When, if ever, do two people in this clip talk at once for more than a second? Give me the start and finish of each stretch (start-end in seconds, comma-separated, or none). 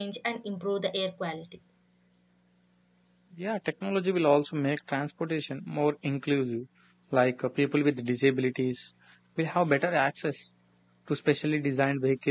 none